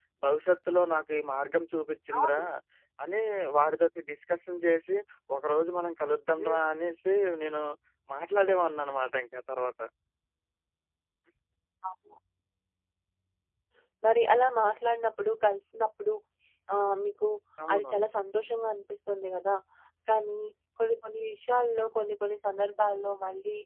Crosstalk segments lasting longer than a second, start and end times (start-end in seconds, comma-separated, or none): none